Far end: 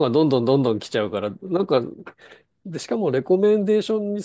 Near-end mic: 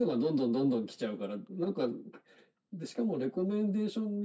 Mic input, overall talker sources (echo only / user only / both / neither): echo only